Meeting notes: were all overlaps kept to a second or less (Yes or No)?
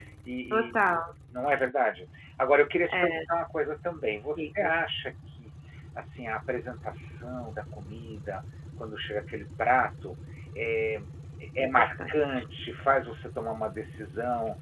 Yes